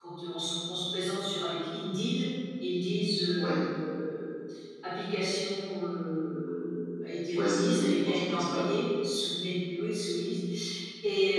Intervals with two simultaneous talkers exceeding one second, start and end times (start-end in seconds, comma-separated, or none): 7.3-8.7